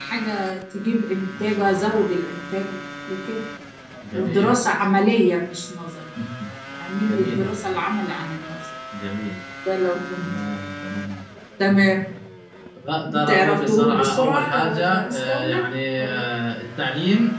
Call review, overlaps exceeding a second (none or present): present